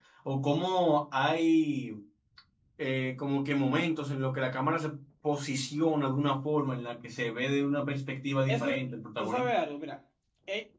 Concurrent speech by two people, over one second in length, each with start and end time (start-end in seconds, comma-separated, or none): none